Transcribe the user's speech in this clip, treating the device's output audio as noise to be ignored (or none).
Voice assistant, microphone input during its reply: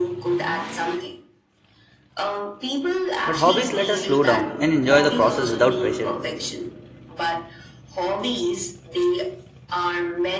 But hobbies let us slow down and enjoy the process without pressure.